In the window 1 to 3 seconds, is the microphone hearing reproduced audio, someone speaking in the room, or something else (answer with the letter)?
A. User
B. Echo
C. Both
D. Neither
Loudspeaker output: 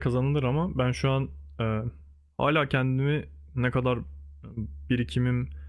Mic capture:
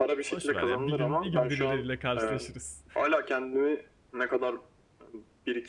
C